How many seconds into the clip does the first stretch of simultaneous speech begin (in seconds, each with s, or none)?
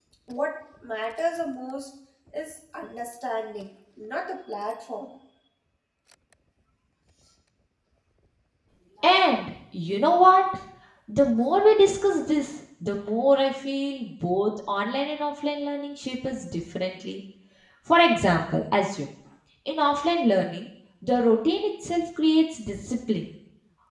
none